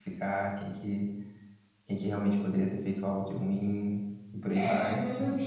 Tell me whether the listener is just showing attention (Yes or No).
No